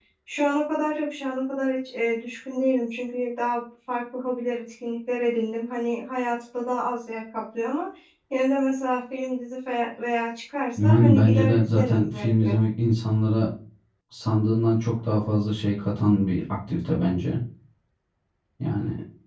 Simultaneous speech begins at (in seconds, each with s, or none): 10.8 s